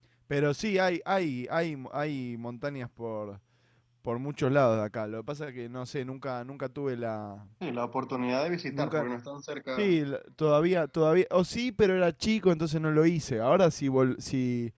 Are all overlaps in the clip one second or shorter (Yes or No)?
Yes